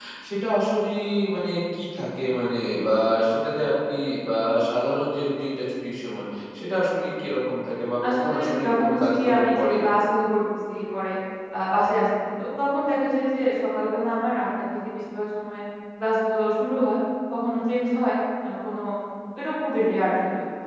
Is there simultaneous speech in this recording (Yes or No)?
Yes